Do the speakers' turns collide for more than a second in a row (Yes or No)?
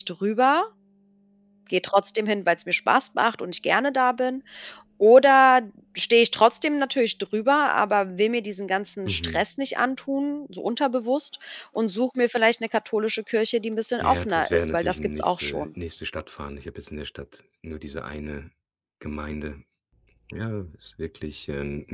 Yes